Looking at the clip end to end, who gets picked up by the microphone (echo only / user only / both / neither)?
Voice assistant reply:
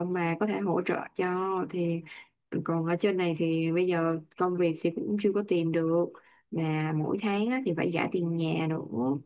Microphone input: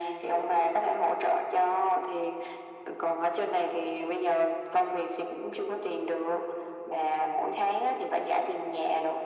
echo only